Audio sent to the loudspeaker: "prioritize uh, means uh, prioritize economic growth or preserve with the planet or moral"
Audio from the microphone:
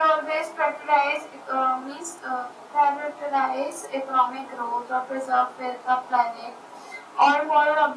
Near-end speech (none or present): none